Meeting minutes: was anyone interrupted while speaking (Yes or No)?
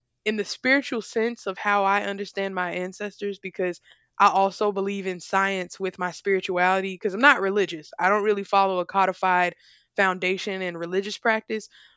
No